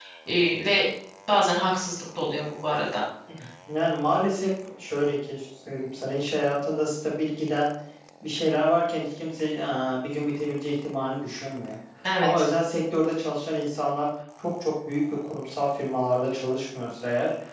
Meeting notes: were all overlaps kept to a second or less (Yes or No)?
Yes